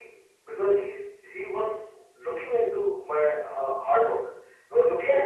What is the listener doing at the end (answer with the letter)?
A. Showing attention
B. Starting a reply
A